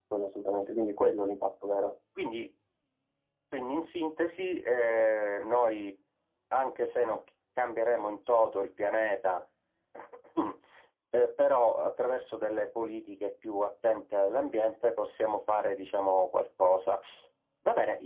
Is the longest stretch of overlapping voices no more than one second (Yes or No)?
Yes